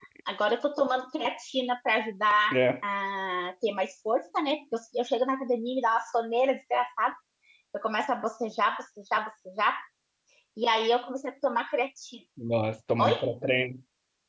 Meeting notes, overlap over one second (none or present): none